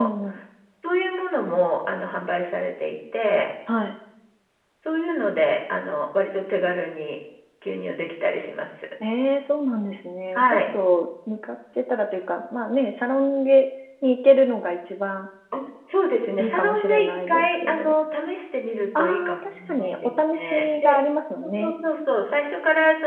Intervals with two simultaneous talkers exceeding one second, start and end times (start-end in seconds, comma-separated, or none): 16.4-17.9, 19.0-21.0